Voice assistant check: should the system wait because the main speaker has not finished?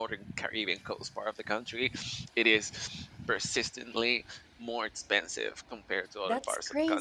No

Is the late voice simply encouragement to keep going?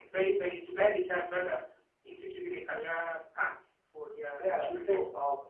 No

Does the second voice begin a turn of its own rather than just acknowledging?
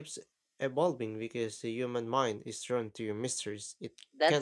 Yes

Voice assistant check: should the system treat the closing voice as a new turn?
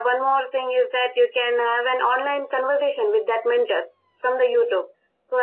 No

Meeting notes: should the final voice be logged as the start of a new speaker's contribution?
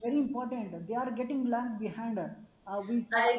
No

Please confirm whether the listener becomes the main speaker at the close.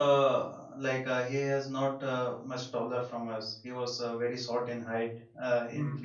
No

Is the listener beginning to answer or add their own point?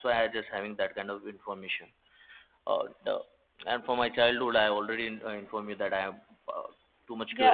Yes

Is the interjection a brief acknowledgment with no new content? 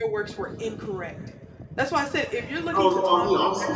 No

